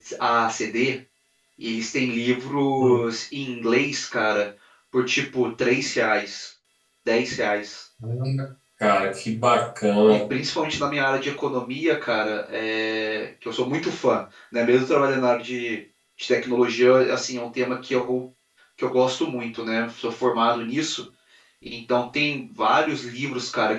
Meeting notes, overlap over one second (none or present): none